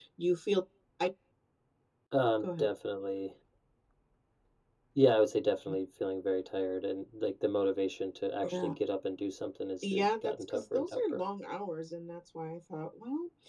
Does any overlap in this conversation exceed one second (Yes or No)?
Yes